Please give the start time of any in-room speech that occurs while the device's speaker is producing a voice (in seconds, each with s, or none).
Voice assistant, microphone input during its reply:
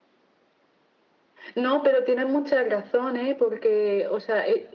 none